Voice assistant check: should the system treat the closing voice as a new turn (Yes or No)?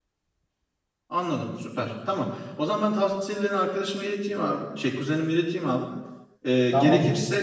No